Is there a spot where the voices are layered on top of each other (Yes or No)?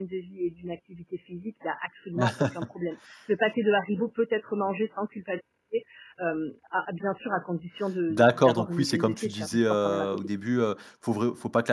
Yes